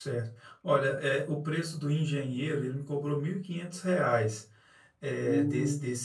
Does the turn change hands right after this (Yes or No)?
No